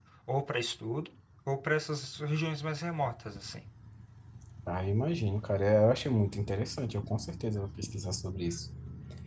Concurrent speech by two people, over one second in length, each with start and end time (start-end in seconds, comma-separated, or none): none